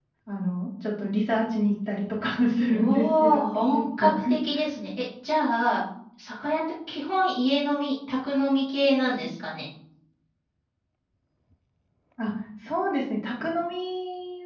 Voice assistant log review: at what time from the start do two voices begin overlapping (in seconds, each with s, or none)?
2.7 s